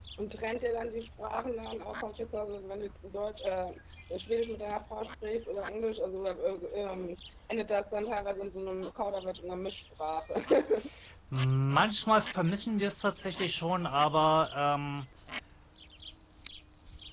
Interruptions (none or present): none